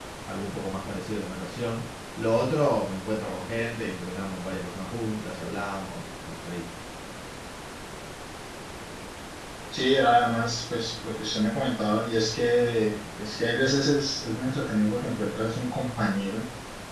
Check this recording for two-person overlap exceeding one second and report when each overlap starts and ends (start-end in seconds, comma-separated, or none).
none